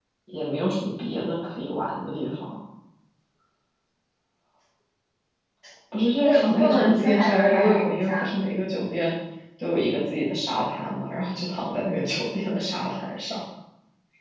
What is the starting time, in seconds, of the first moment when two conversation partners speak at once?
6.2 s

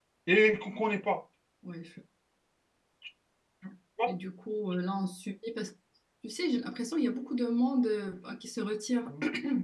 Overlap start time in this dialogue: none

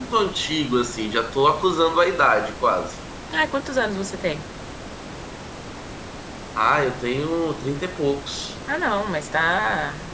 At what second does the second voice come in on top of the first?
none

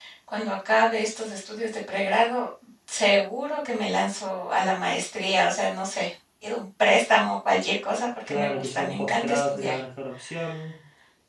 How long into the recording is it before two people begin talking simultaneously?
8.3 s

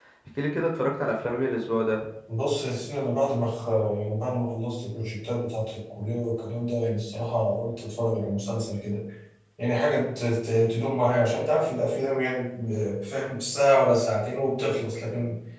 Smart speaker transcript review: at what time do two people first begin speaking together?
none

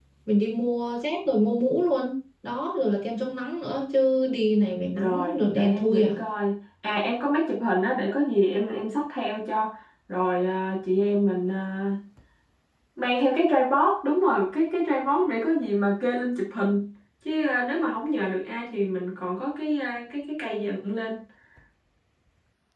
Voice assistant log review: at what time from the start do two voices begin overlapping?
4.9 s

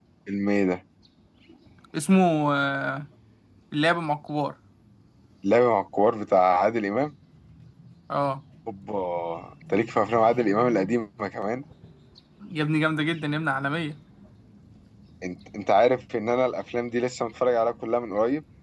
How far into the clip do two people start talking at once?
none

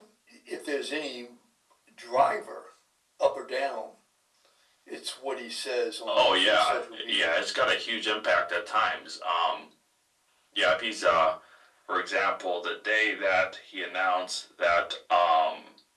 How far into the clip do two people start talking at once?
6.1 s

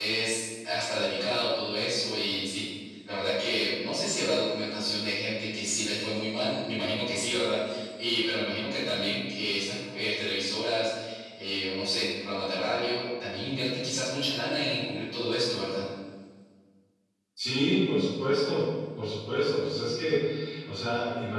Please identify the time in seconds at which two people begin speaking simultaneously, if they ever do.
none

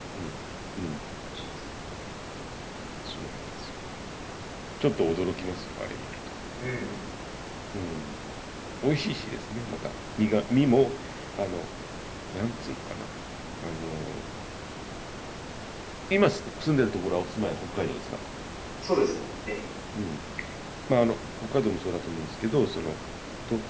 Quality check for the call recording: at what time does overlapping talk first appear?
none

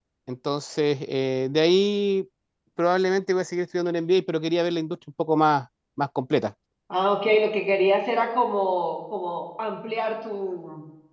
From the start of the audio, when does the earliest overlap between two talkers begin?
none

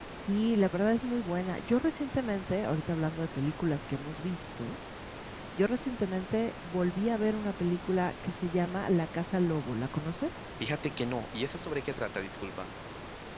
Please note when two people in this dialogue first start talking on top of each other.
none

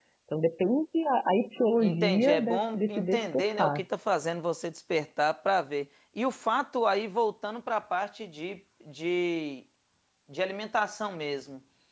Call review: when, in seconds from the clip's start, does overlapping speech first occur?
1.8 s

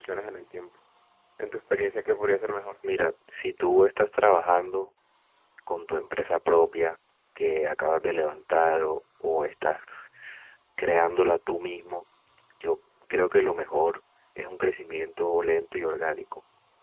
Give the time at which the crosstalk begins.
none

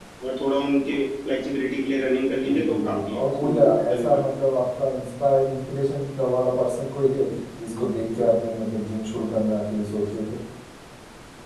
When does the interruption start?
2.4 s

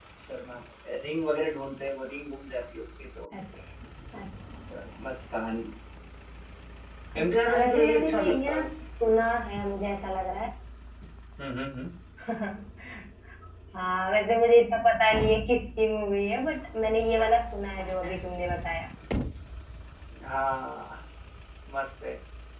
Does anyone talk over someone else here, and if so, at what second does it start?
7.2 s

